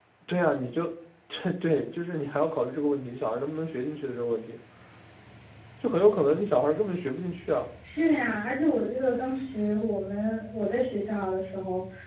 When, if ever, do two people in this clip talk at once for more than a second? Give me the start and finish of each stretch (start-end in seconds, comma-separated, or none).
none